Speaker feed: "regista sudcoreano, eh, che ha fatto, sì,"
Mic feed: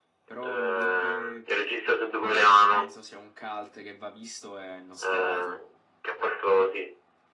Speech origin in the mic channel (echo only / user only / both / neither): both